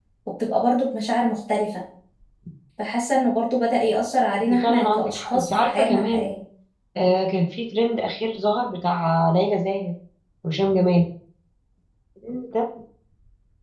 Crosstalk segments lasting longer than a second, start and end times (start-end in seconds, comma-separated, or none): 4.5-6.2